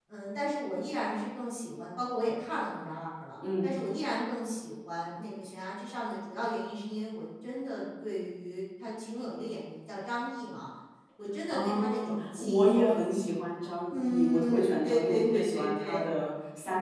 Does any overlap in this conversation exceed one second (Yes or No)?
Yes